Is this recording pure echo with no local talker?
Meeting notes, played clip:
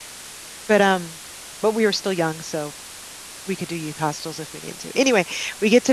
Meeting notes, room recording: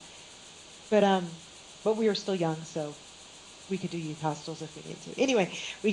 Yes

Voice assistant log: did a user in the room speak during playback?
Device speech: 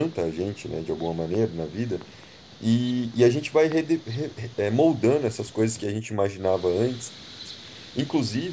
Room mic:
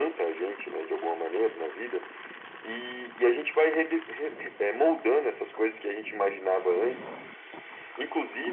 No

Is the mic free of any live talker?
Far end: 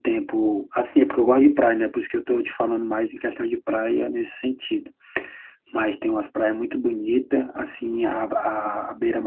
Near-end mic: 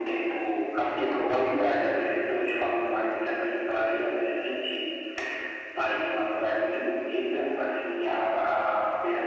Yes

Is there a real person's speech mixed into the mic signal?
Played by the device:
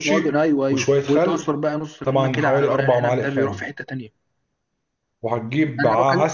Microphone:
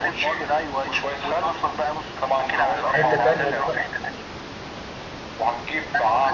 Yes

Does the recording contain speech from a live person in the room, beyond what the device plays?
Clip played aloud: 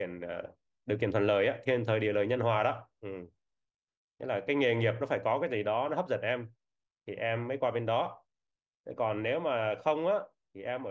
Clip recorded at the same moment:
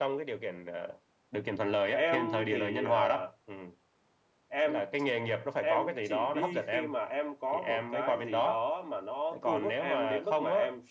Yes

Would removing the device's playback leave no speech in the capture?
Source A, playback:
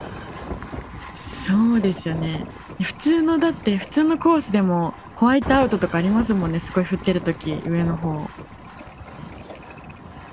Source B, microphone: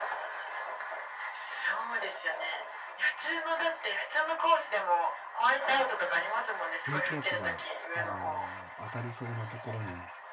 No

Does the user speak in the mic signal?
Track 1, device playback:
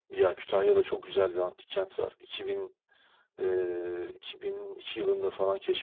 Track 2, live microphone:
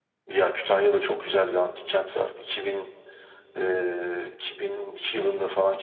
No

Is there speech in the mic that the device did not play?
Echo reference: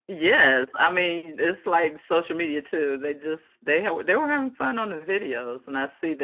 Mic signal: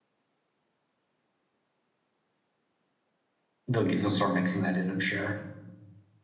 Yes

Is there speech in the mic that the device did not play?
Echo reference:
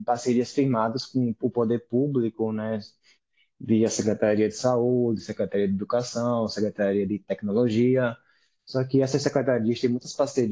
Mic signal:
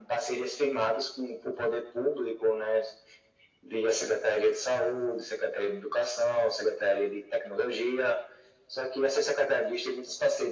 No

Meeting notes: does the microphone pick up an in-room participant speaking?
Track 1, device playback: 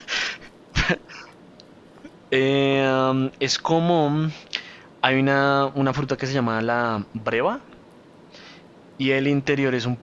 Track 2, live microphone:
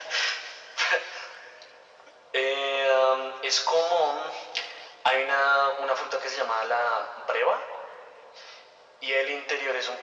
No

